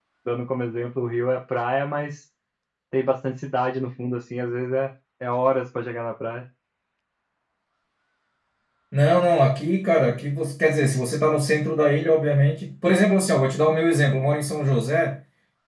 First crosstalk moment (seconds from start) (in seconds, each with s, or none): none